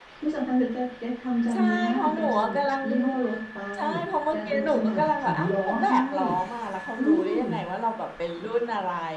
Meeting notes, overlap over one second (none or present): present